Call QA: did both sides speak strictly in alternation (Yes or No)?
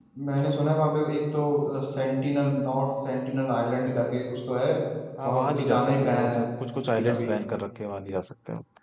No